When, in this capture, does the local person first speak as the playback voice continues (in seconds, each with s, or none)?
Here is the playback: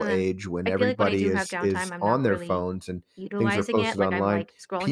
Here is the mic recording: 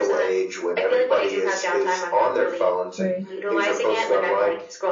3.0 s